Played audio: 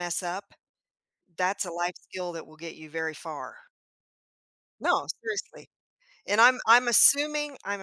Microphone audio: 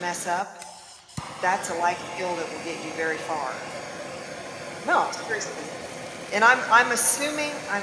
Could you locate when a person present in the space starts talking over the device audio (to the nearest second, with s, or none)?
none